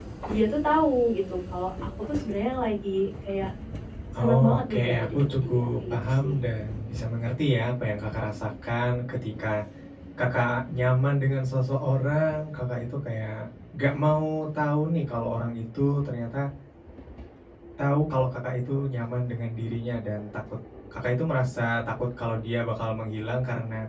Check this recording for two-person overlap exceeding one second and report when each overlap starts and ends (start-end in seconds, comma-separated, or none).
4.2-6.3